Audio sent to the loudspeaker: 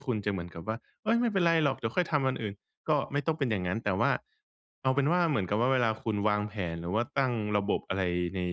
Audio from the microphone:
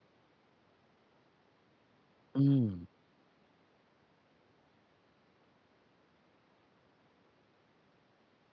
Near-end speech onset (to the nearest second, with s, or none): 2 s